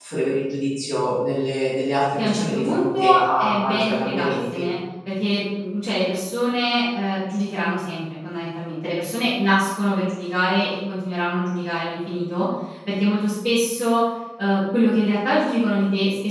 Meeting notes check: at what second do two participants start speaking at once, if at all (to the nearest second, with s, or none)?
2 s